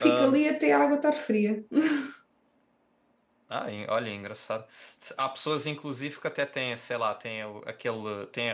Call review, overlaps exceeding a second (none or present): none